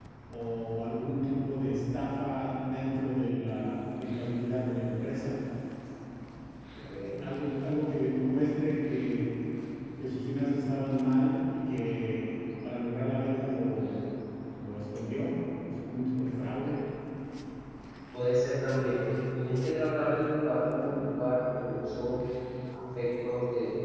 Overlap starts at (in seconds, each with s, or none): none